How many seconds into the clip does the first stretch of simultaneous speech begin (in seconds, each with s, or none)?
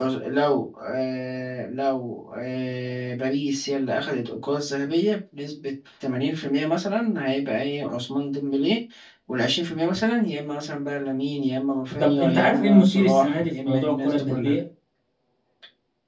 11.9 s